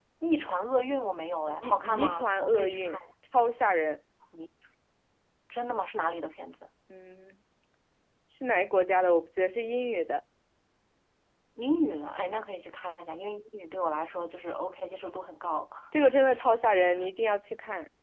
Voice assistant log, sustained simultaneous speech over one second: present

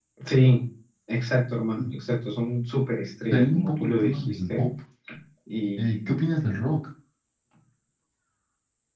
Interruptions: present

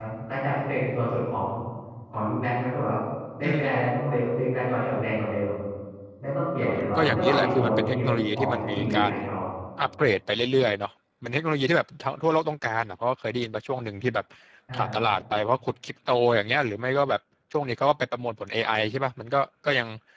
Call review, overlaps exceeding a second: present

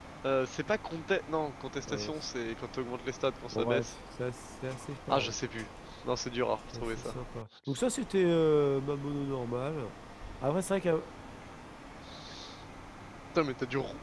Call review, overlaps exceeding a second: none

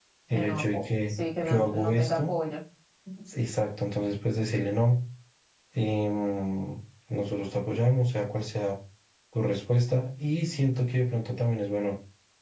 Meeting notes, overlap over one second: present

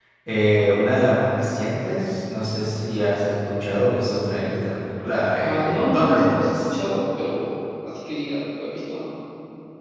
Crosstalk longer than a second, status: present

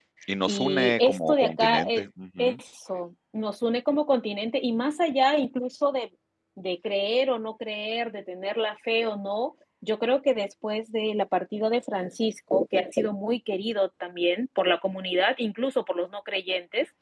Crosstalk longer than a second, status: present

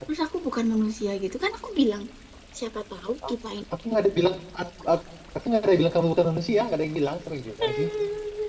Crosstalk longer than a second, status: none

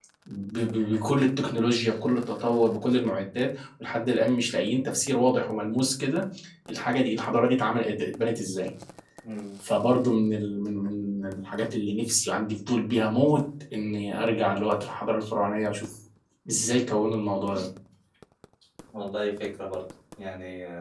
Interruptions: none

